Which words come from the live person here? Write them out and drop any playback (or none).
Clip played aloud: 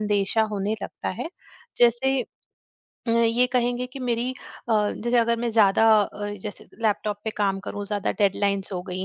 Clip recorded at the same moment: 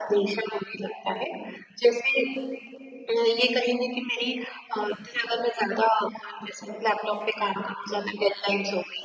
none